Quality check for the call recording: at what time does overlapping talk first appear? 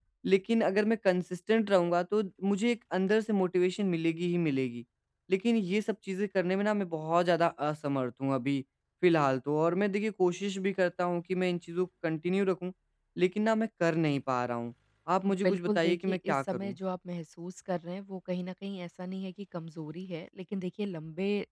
15.3 s

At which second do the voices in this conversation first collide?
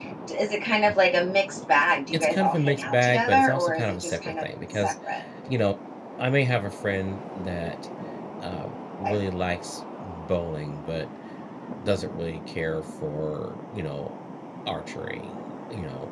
2.1 s

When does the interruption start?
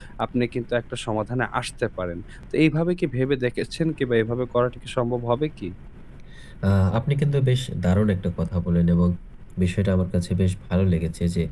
none

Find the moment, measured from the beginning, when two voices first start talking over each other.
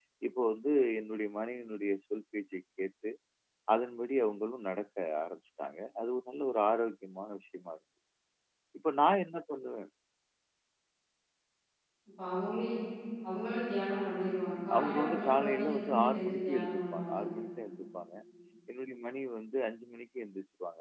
14.7 s

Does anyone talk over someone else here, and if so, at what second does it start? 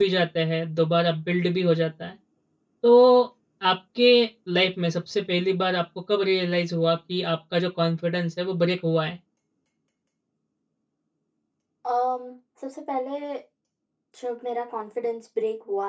none

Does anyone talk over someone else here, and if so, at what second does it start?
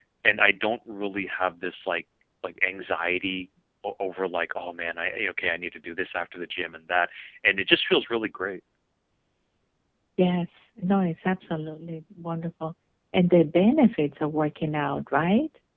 none

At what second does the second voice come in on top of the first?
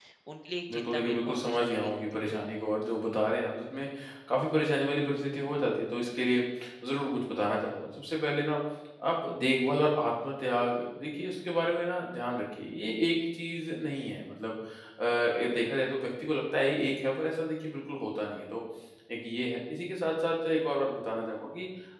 0.7 s

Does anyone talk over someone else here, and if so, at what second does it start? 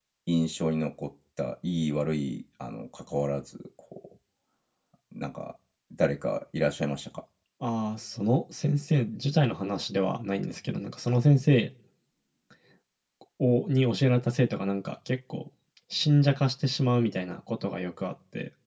none

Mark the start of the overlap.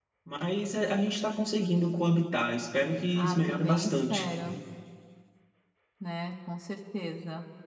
3.1 s

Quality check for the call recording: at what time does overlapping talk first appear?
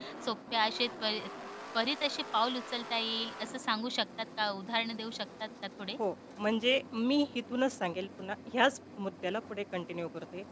none

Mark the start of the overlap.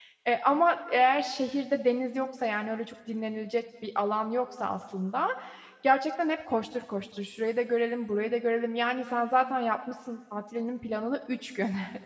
none

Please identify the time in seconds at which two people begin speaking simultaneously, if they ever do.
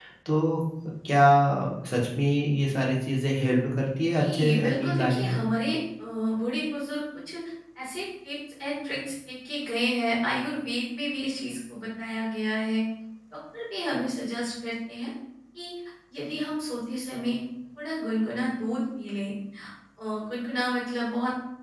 4.1 s

